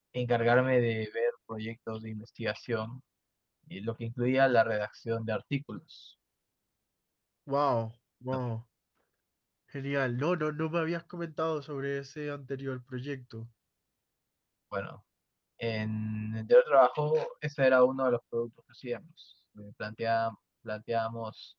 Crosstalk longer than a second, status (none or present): none